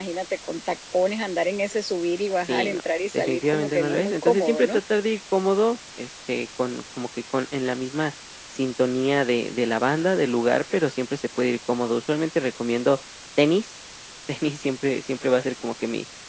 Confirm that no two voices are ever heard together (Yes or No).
No